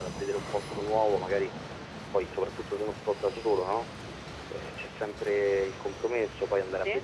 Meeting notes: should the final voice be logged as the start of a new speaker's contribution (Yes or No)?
No